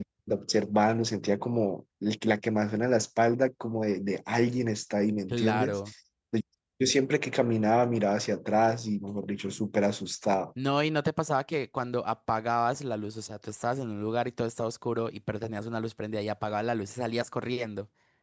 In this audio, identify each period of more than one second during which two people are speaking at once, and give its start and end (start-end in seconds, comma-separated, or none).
none